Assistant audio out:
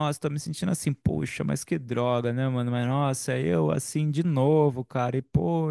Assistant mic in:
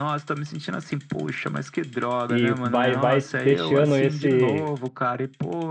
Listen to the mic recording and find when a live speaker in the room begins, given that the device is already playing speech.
2.3 s

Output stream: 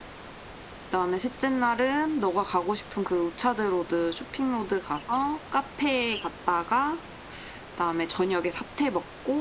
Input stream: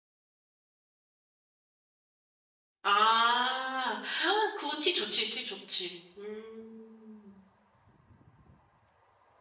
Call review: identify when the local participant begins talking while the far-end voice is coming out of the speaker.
2.8 s

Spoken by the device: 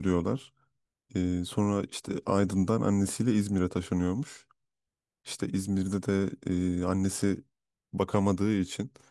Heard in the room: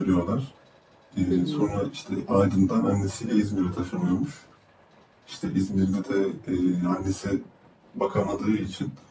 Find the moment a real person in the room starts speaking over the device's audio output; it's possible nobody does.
1.3 s

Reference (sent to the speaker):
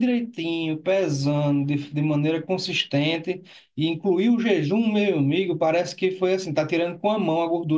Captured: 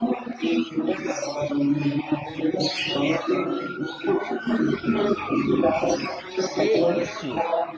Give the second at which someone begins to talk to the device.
6.5 s

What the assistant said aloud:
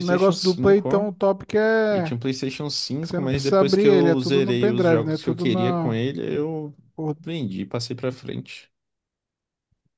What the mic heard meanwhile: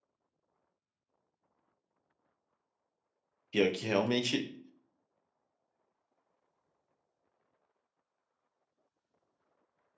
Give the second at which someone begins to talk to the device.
3.5 s

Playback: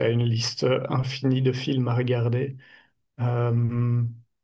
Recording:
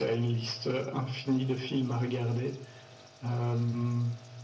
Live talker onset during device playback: none

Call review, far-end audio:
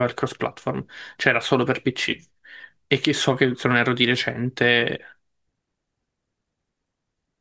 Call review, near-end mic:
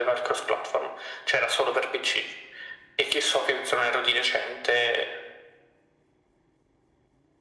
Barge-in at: none

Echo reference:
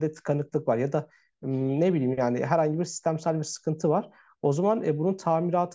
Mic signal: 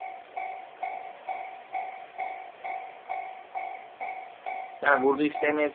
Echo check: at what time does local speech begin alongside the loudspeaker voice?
4.8 s

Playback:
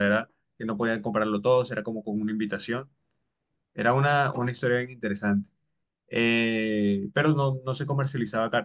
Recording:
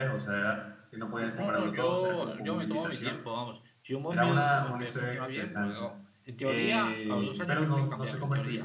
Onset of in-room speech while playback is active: 1.1 s

